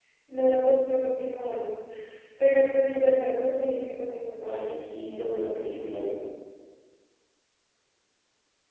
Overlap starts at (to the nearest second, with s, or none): 4 s